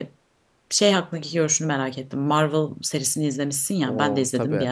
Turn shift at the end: No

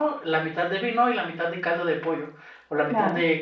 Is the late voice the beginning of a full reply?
No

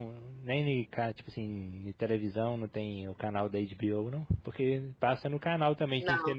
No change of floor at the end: Yes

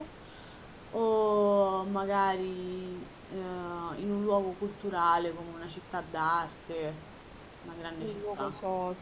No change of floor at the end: No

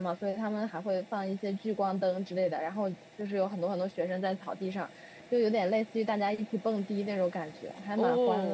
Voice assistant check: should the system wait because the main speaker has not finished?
No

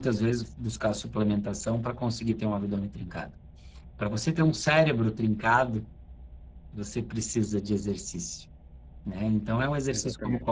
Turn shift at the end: No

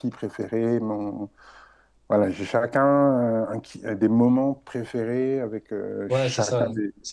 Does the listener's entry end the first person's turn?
Yes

